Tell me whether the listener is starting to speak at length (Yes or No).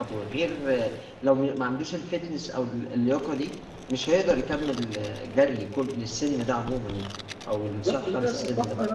Yes